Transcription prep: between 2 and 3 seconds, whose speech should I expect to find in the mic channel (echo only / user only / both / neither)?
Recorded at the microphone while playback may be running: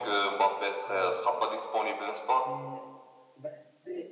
both